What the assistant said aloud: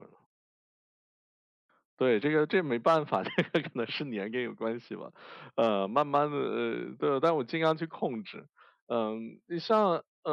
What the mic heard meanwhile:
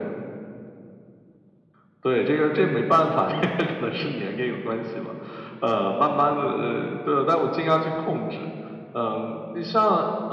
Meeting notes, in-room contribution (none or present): none